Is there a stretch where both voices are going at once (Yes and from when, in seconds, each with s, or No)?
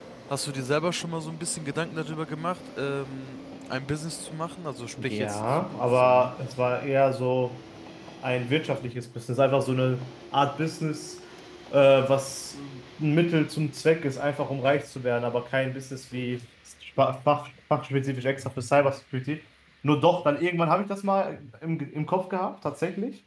Yes, from 5.0 s